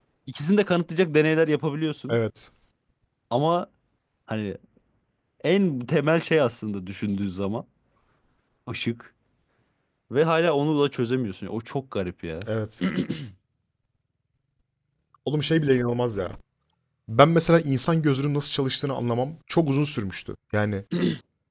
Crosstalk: none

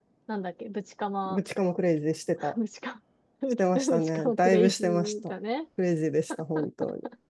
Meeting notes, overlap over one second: present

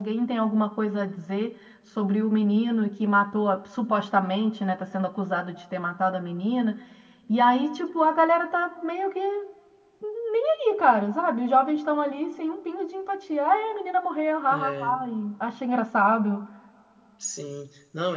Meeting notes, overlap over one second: none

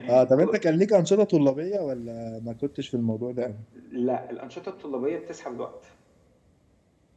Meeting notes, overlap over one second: none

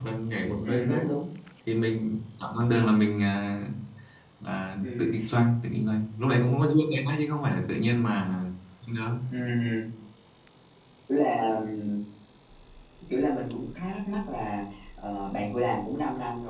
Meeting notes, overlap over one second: none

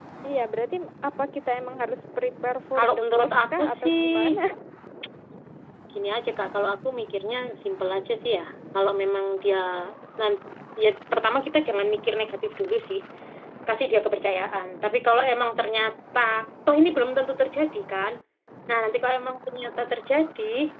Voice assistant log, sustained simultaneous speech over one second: present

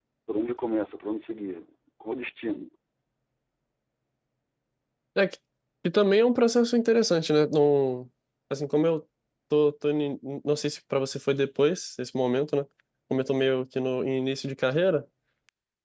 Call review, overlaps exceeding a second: none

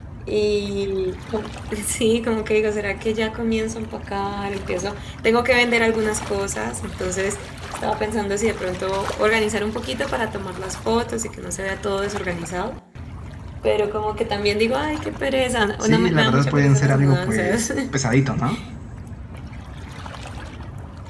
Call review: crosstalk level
present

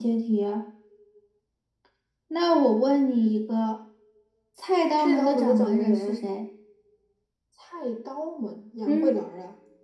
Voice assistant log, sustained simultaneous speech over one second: present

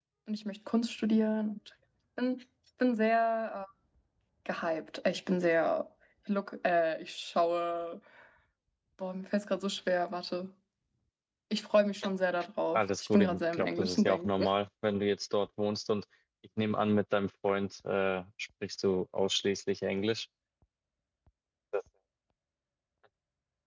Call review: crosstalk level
present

